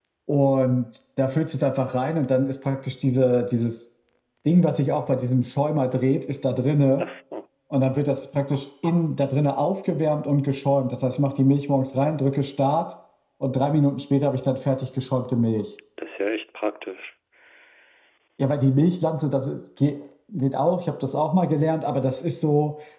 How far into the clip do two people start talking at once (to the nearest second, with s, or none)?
none